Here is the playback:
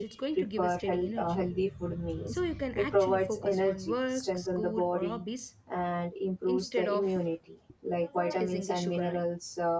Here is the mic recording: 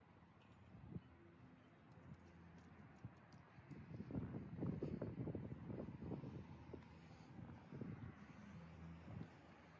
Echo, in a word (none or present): none